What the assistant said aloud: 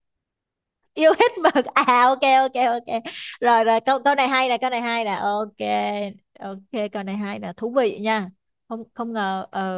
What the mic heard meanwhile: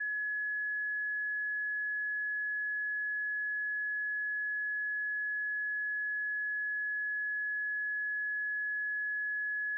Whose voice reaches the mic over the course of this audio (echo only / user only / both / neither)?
neither